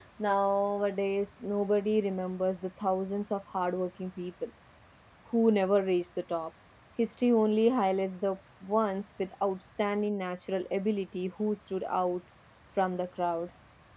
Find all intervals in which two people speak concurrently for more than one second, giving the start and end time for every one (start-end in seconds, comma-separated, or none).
none